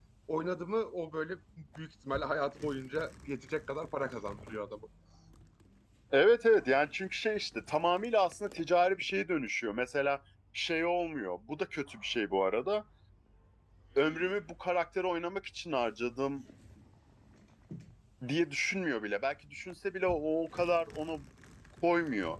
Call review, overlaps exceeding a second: none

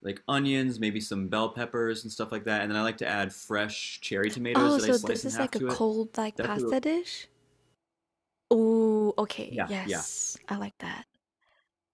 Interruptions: present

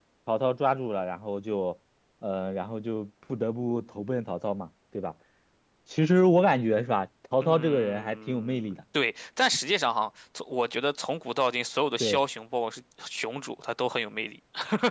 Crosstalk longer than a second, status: present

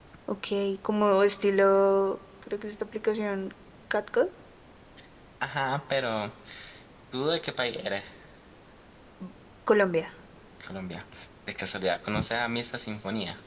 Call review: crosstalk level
none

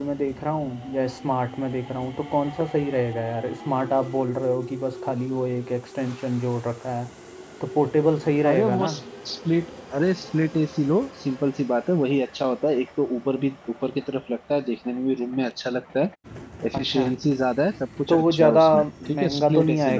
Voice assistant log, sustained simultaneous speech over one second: present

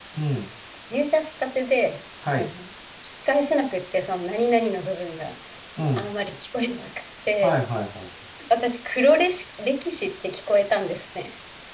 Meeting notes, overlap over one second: none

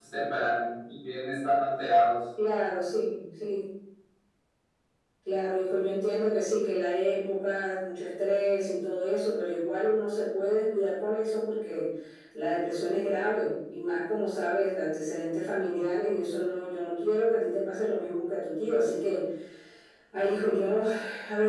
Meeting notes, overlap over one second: none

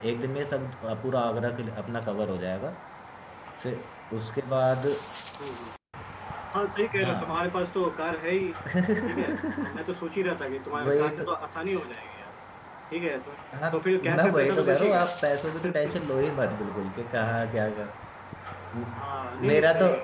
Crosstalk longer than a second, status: present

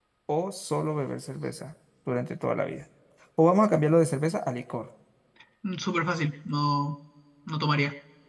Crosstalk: none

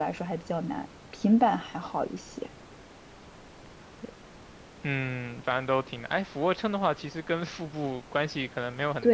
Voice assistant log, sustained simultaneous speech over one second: none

